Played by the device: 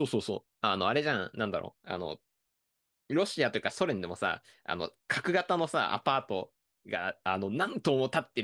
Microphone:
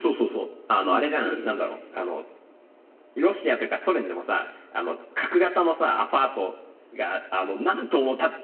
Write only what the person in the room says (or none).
めっちゃ広い家で、